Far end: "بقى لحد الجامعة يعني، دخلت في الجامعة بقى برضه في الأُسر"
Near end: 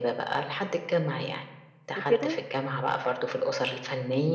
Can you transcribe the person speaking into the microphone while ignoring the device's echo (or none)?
وكده،